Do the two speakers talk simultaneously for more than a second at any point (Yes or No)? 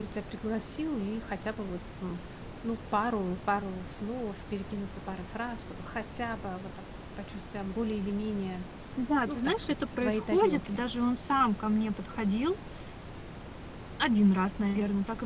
Yes